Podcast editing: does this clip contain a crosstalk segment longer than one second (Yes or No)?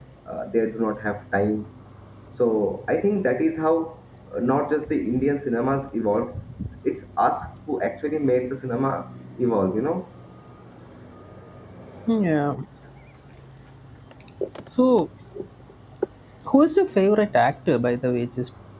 No